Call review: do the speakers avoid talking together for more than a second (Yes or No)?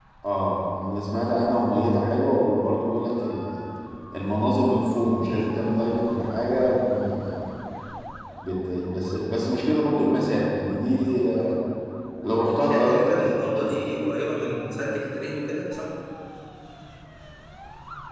No